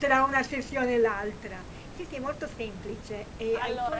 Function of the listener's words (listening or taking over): listening